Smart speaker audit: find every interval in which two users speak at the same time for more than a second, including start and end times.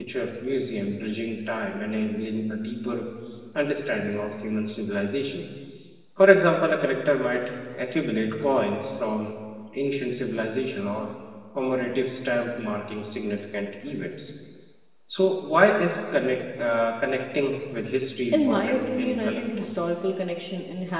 18.3-19.7

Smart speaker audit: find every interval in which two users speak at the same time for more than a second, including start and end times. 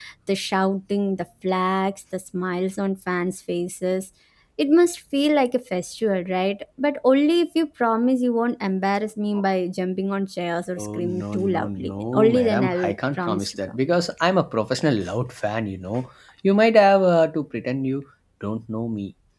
10.8-13.8

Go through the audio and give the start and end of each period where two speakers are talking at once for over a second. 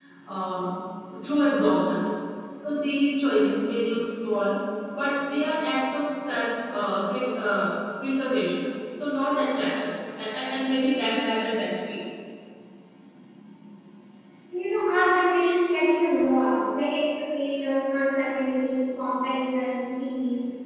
none

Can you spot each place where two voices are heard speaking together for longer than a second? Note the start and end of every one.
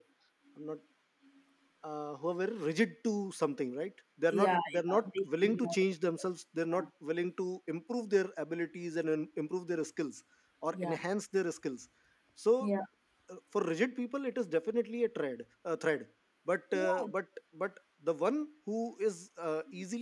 4.3-6.2

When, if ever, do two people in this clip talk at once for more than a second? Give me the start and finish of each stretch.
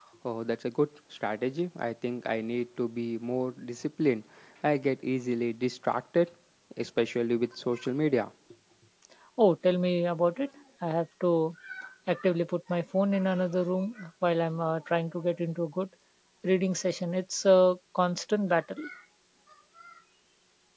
none

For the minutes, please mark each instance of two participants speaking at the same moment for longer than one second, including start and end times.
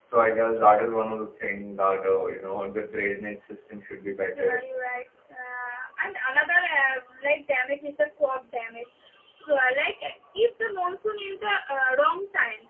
none

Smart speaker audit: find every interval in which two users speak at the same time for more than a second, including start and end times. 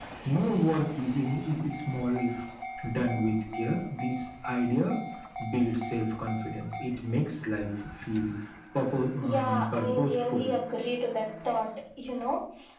9.2-10.4

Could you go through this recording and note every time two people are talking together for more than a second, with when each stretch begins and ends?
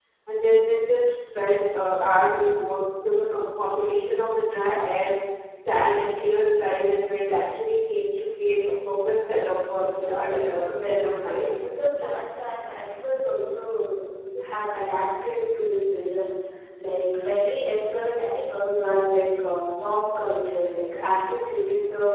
9.9-11.7

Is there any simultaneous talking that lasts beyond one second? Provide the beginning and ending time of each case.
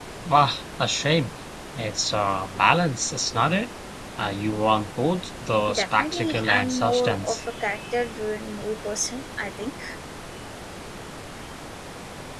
5.7-7.4

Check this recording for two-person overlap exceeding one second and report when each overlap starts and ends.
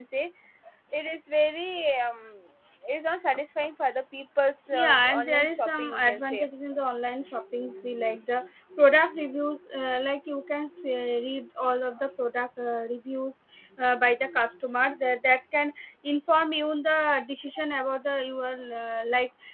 4.7-6.4

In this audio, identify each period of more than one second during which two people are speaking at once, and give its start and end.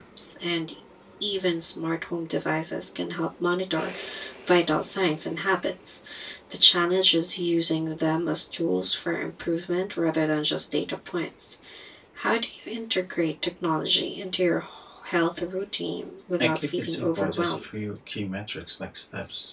16.4-17.6

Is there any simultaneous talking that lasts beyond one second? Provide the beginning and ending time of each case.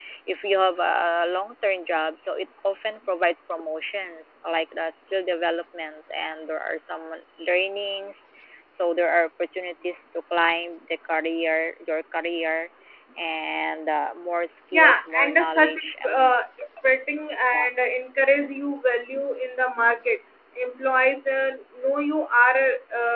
14.7-16.3

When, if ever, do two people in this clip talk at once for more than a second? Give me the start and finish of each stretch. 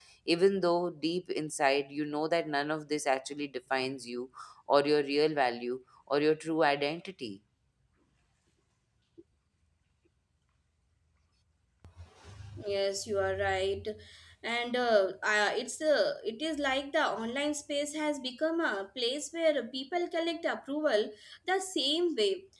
none

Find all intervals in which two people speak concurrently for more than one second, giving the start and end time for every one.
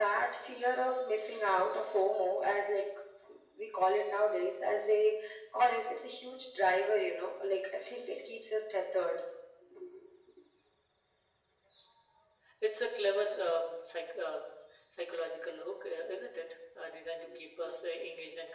none

